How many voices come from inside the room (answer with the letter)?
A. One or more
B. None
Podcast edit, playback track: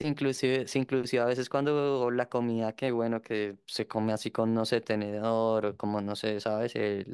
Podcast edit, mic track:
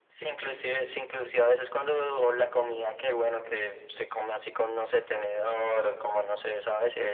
B